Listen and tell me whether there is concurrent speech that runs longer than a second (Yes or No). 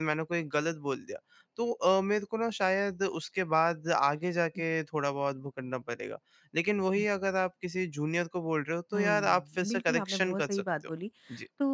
Yes